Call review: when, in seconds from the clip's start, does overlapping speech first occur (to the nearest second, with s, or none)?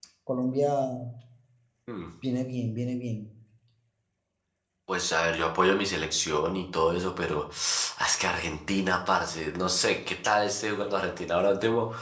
none